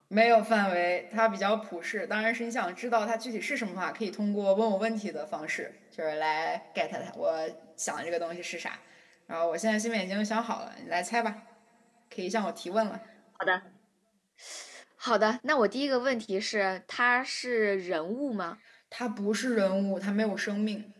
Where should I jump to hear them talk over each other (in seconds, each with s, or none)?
none